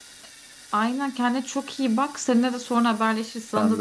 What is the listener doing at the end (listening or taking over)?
listening